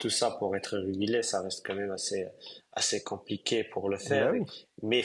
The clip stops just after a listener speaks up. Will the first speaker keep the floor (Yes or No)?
Yes